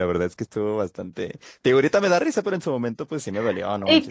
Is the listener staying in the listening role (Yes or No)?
No